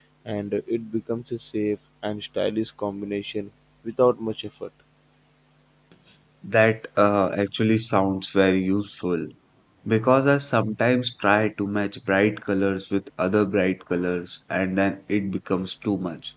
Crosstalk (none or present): none